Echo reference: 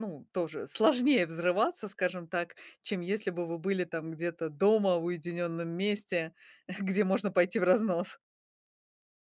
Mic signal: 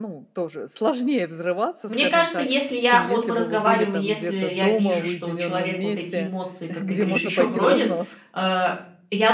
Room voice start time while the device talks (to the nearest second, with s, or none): 2 s